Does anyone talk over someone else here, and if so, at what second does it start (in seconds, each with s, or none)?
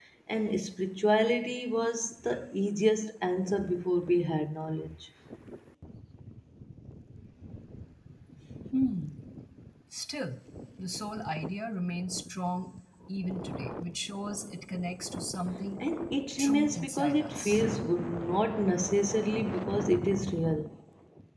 16.4 s